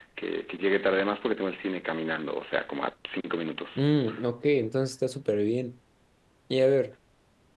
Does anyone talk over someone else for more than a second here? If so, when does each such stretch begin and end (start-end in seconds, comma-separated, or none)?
none